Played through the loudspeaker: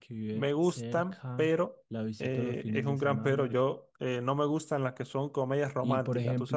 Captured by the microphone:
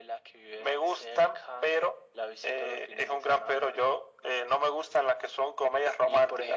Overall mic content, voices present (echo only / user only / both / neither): echo only